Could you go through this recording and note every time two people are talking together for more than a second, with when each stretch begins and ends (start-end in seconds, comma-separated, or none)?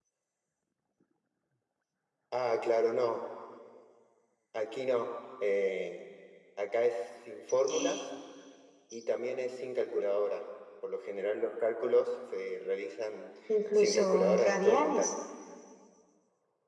13.7-15.1